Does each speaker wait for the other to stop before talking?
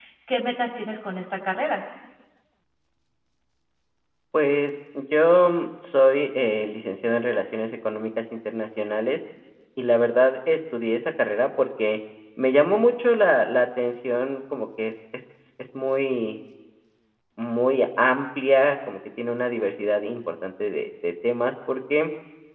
Yes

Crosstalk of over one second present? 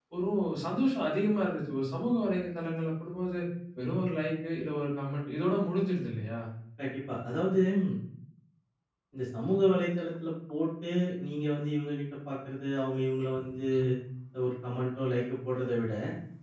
No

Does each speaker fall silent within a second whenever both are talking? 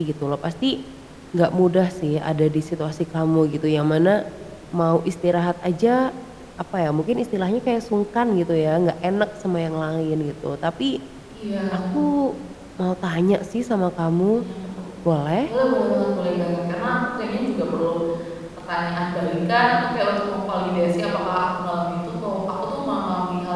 Yes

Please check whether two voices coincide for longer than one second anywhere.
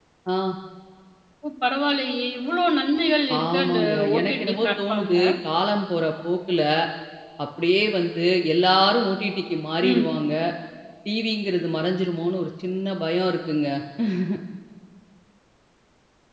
Yes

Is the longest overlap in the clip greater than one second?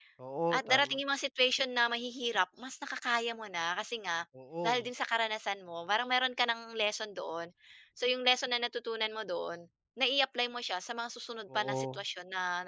No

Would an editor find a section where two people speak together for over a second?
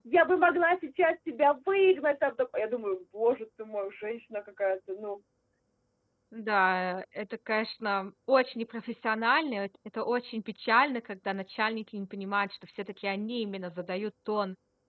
No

